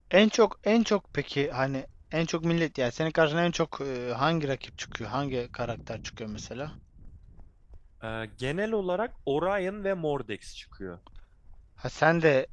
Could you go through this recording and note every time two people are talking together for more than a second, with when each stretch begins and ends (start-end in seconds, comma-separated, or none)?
none